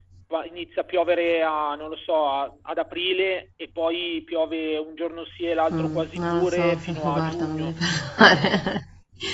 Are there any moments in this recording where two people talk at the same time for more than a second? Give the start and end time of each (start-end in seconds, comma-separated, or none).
5.7-7.7